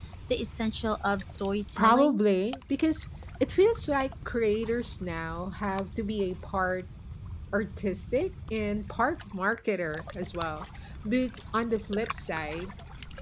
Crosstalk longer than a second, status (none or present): none